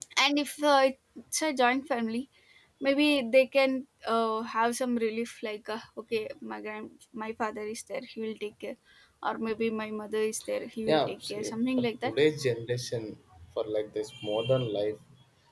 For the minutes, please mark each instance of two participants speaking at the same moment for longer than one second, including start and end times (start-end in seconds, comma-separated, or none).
10.9-12.1